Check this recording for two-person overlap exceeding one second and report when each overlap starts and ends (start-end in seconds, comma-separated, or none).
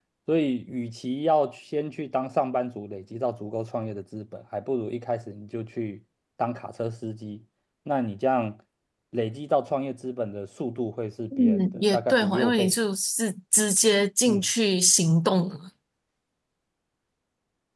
11.4-12.8